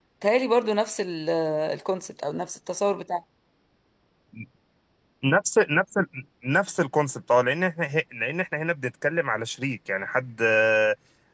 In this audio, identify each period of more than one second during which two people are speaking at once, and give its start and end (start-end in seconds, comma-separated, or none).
none